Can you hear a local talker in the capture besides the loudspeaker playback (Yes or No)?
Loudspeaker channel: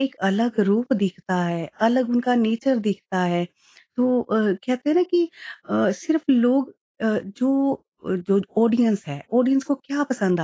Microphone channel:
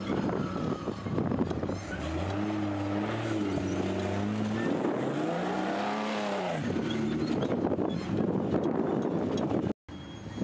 No